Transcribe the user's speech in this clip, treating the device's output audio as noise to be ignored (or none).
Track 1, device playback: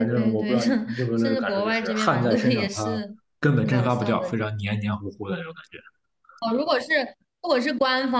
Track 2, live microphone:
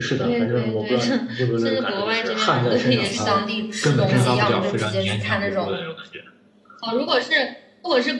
去当地吃东西，要么就直接去看那种